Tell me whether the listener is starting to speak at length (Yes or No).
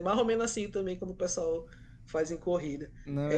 No